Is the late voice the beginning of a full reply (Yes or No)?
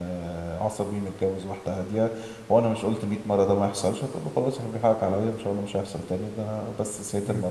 No